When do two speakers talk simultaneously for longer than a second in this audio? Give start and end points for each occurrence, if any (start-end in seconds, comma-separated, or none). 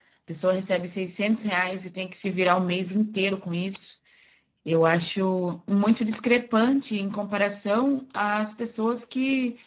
none